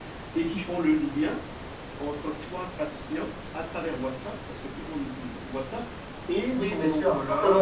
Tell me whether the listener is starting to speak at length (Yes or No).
Yes